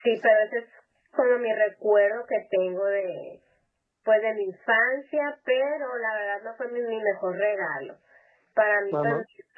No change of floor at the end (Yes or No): Yes